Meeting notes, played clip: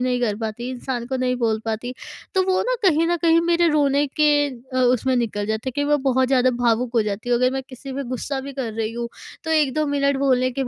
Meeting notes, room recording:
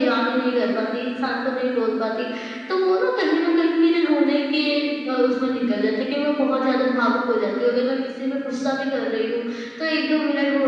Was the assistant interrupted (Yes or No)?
No